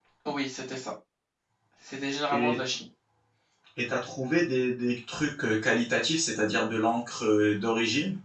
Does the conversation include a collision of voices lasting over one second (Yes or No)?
No